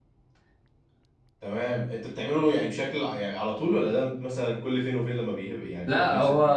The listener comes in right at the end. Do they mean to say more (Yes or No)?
Yes